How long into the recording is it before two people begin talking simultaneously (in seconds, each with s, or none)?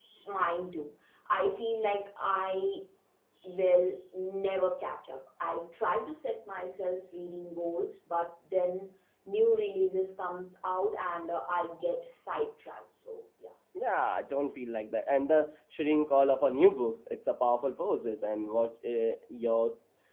none